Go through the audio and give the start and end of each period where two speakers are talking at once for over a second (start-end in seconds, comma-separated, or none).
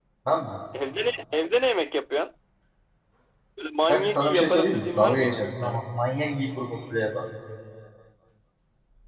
3.9-5.8